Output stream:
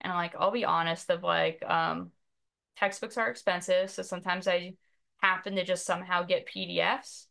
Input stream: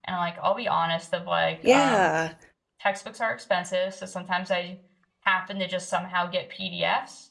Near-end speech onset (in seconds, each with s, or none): 1.6 s